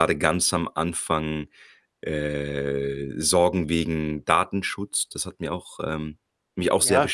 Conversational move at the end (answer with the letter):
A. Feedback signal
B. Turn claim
B